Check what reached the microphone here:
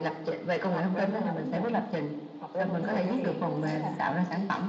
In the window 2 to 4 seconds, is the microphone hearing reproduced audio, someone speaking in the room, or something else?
both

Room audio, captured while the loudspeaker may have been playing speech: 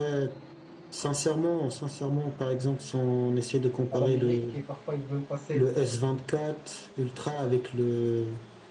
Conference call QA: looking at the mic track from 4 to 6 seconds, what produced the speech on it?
both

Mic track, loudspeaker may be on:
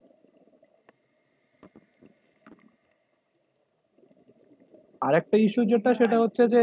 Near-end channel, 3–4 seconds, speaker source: neither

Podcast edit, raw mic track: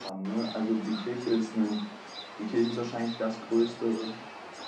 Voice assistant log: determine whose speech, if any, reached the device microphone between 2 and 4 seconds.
echo only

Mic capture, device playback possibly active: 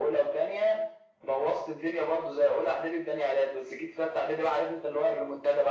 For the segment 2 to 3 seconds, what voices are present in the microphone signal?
echo only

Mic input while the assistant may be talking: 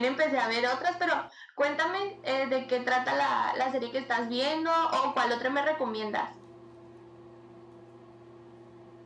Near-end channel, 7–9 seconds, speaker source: neither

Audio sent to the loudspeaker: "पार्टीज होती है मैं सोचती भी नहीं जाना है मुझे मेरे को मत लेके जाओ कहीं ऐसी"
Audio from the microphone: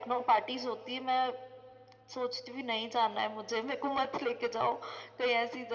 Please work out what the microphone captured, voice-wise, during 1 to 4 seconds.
echo only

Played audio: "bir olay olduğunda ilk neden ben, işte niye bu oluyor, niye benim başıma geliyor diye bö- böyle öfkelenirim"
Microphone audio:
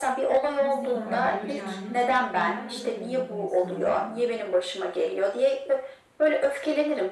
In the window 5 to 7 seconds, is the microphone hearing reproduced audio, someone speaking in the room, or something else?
echo only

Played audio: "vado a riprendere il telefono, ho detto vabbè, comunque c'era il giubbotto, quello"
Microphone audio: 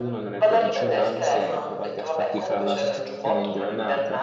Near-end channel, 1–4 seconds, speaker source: both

